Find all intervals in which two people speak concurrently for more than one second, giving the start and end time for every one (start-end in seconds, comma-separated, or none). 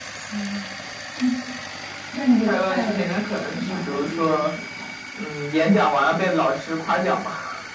2.5-4.5